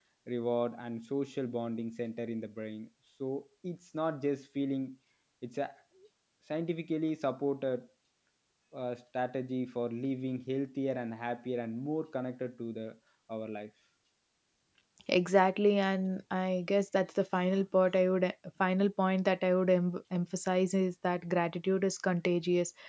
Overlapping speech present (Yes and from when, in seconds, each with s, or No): No